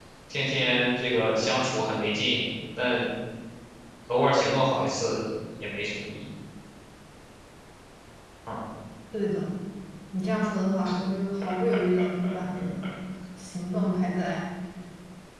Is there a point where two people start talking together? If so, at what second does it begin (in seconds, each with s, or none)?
none